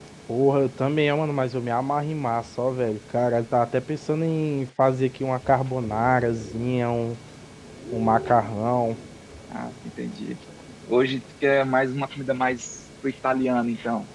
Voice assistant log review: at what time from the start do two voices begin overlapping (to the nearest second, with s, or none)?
none